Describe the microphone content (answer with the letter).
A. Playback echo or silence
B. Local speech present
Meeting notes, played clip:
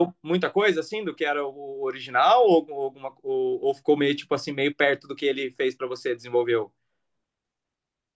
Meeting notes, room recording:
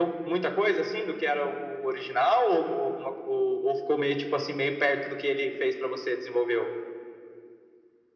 A